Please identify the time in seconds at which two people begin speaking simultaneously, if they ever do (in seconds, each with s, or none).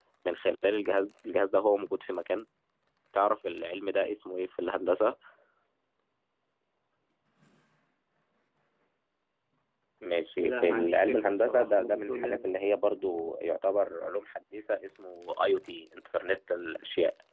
10.4 s